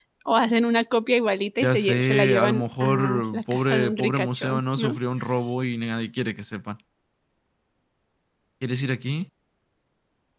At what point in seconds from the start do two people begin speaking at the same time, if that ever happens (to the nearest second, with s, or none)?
2 s